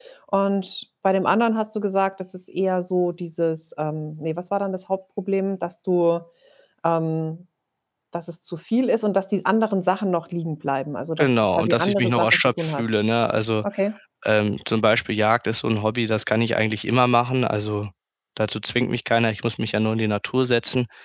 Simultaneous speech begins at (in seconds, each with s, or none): 11.2 s